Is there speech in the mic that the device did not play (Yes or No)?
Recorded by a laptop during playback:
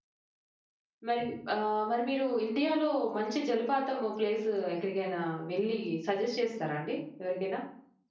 Yes